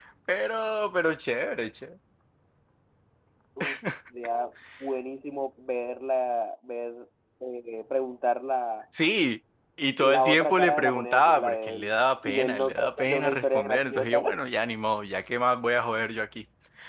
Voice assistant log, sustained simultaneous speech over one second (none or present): present